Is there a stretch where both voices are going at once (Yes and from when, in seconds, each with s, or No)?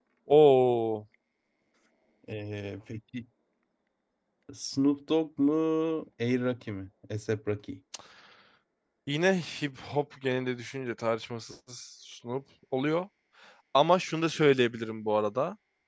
No